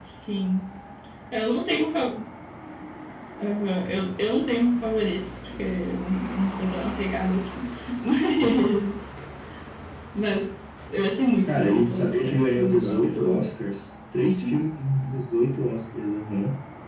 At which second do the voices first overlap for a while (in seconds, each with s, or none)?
11.5 s